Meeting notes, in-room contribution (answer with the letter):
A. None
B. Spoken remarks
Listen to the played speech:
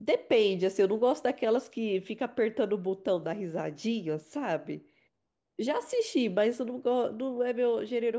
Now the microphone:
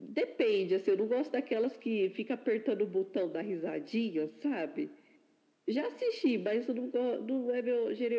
A